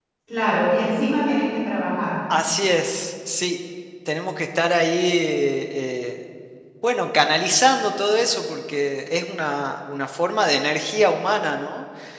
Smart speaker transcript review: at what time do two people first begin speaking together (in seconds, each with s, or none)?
none